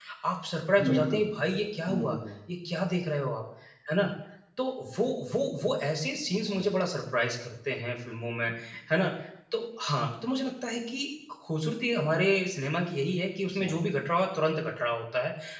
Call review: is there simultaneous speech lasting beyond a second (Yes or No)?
No